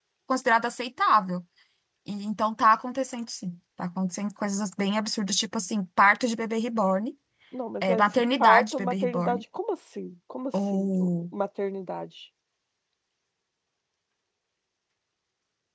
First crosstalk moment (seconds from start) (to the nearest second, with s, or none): 8 s